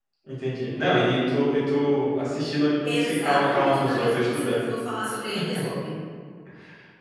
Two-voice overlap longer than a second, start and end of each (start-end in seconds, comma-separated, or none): 2.9-4.7